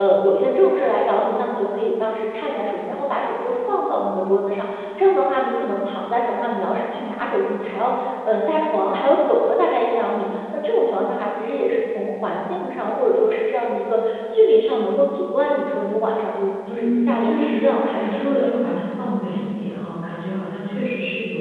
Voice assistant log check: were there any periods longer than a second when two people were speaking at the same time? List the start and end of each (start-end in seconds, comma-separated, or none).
16.7-18.6